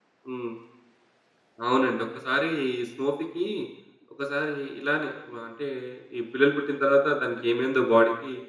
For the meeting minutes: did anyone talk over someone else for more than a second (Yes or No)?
No